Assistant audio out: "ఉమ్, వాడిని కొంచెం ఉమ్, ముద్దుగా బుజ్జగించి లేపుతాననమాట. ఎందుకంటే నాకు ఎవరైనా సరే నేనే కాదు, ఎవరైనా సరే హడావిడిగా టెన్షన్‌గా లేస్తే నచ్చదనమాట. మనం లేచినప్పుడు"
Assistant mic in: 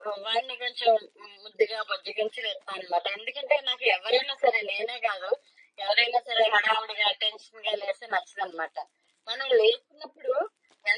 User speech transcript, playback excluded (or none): none